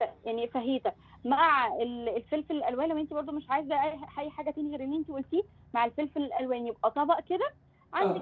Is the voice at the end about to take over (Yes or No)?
No